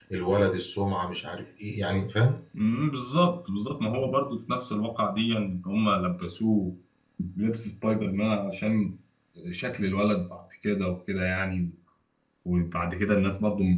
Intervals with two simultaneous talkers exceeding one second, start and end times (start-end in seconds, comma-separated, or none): none